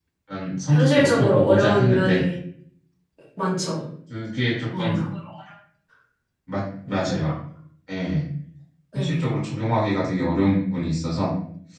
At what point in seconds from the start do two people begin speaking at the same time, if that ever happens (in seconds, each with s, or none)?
0.7 s